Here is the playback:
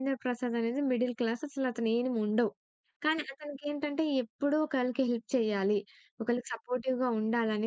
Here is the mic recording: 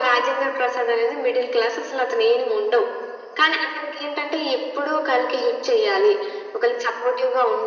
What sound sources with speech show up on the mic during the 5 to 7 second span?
echo only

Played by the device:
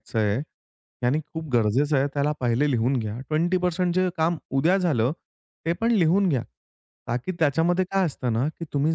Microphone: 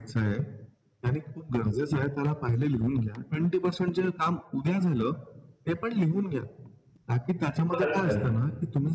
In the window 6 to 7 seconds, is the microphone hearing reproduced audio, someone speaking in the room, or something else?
echo only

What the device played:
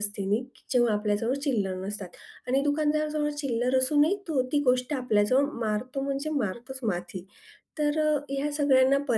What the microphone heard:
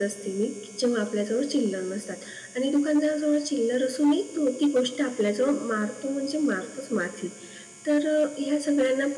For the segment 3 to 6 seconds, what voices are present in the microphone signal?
echo only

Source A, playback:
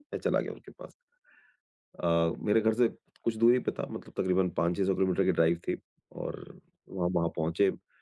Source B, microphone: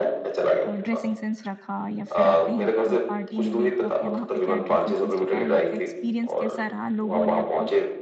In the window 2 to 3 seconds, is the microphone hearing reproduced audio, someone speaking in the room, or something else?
both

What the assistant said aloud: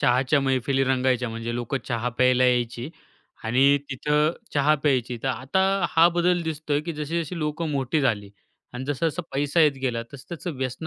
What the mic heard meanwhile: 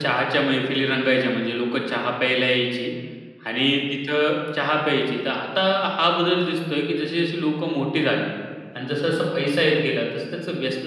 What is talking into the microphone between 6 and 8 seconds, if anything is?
echo only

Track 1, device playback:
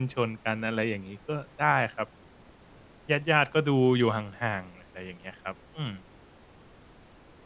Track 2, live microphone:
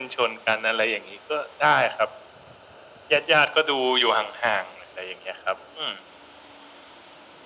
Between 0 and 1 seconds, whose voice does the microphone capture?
echo only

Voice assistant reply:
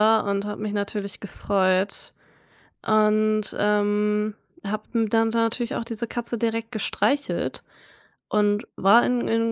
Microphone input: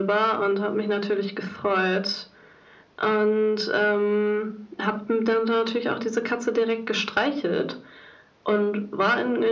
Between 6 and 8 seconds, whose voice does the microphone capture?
echo only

